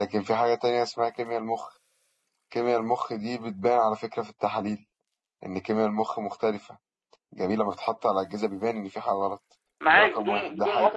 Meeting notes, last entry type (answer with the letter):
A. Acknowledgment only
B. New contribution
B